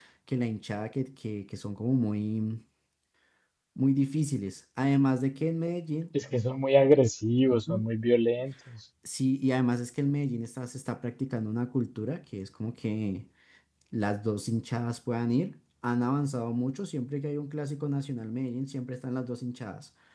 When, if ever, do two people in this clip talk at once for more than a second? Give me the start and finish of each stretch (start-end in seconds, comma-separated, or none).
none